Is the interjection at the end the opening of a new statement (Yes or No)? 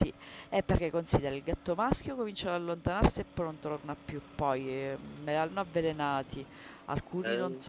No